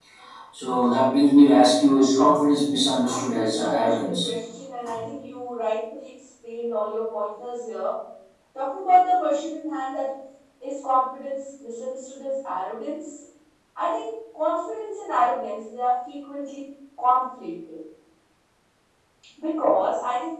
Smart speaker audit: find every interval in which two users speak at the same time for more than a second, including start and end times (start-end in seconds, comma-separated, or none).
3.1-4.3